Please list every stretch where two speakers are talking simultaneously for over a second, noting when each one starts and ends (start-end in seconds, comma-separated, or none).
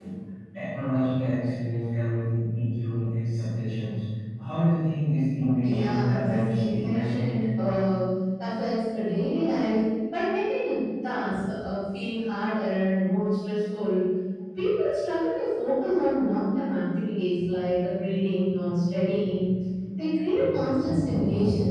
5.6-7.2